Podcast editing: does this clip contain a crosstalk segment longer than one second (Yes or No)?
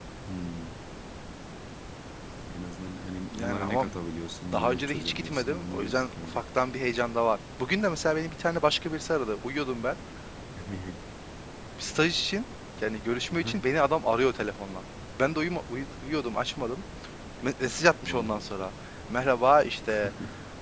Yes